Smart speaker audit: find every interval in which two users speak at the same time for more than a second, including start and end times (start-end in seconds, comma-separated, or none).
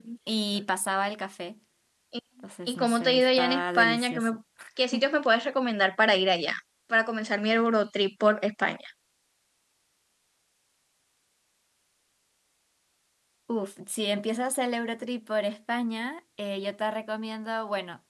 2.7-4.3